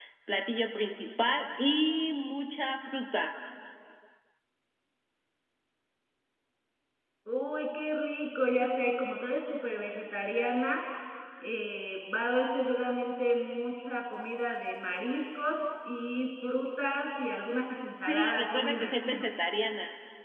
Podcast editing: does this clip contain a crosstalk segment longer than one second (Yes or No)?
Yes